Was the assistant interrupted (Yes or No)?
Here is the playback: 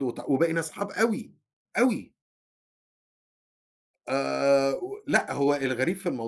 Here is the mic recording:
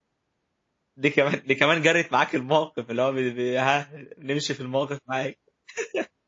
Yes